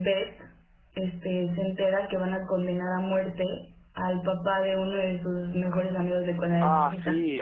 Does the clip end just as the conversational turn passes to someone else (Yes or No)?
Yes